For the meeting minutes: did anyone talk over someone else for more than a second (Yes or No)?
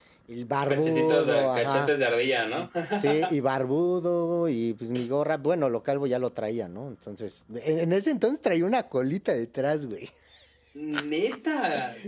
Yes